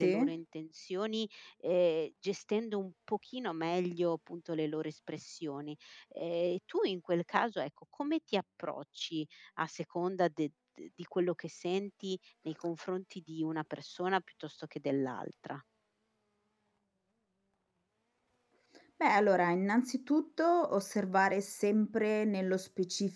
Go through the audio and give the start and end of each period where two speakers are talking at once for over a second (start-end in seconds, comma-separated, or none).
none